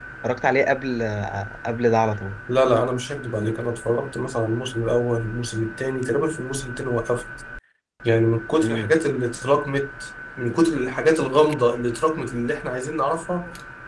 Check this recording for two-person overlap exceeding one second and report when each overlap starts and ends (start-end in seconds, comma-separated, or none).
none